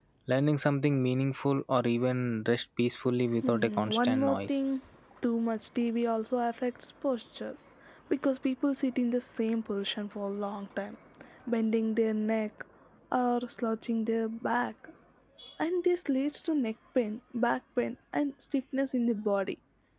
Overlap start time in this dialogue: 3.4 s

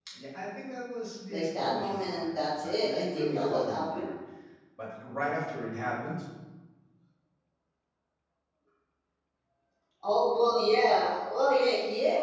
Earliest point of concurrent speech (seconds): 1.3 s

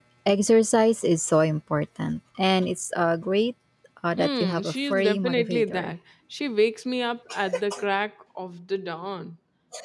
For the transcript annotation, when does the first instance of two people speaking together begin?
4.2 s

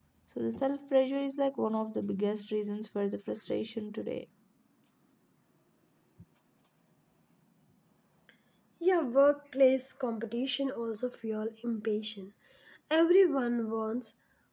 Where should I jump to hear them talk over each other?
none

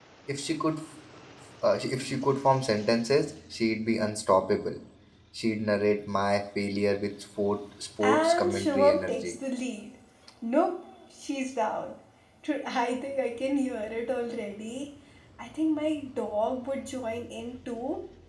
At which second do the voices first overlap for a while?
8.0 s

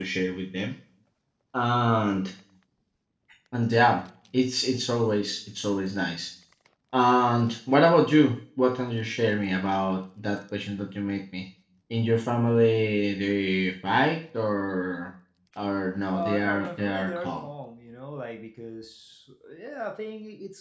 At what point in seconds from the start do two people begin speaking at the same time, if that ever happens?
16.1 s

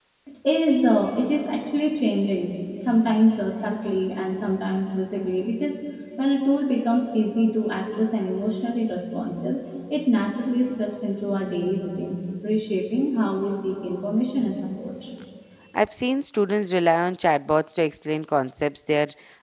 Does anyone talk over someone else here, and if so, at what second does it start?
none

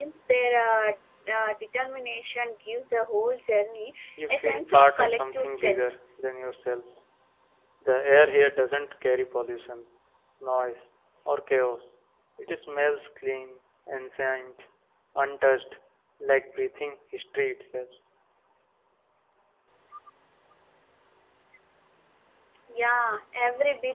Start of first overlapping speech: 4.2 s

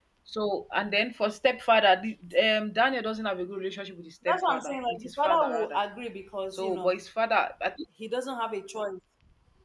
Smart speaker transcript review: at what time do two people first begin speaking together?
4.3 s

